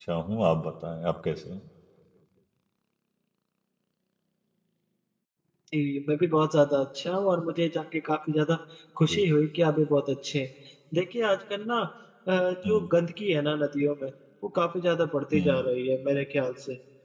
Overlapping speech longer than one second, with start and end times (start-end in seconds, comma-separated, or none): none